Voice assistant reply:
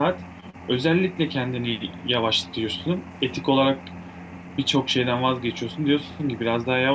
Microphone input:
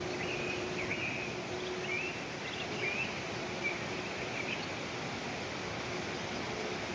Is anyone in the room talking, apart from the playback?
No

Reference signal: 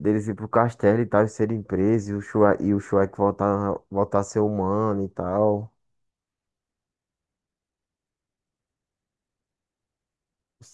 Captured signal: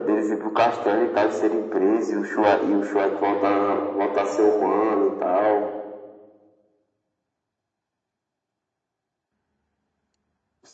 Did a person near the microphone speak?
No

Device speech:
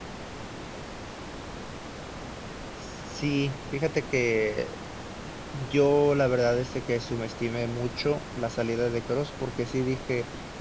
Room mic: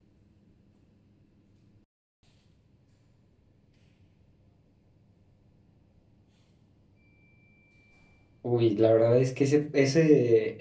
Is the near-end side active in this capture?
Yes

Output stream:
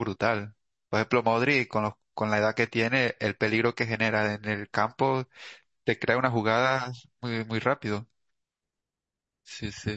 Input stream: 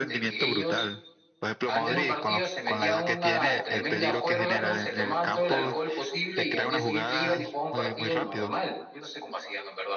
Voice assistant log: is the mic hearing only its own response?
No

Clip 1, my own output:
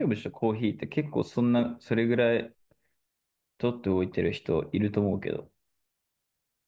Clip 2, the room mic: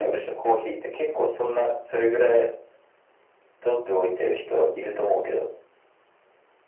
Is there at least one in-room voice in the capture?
No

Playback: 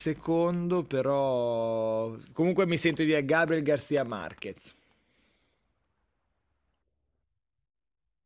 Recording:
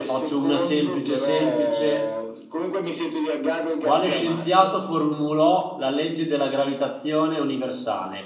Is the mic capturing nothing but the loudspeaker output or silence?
No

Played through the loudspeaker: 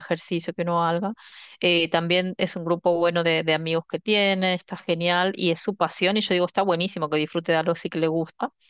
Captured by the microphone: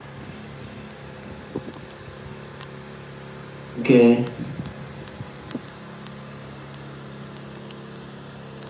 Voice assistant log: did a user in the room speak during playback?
Yes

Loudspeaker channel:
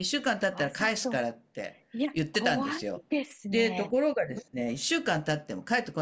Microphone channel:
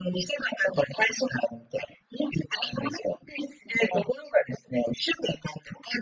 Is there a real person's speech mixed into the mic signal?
No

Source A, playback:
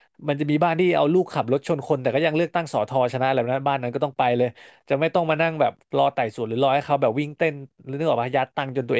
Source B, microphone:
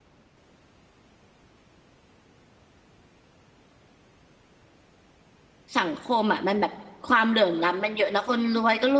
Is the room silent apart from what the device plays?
No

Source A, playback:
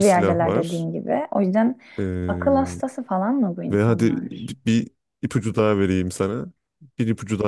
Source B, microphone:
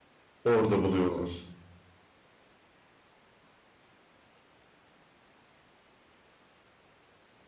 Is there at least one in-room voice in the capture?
Yes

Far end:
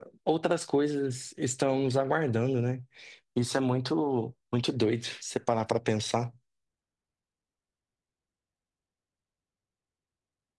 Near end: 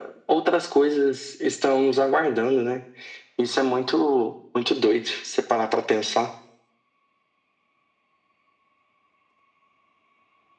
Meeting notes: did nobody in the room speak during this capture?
Yes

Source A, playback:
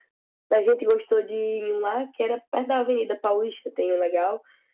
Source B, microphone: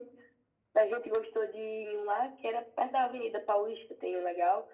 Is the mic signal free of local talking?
Yes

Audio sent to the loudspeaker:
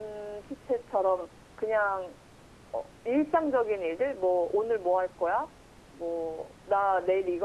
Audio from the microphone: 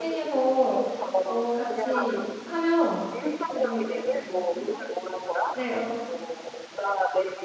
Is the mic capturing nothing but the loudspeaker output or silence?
No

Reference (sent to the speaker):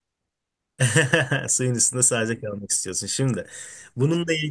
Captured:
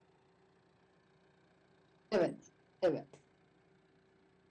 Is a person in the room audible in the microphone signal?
Yes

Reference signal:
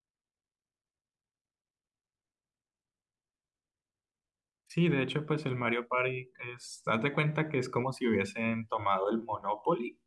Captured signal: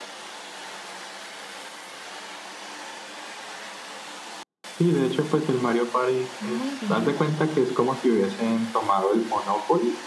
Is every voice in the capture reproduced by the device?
No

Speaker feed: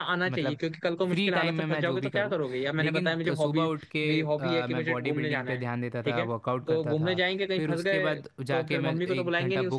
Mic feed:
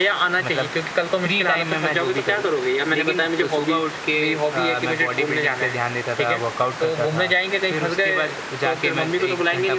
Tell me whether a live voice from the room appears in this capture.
No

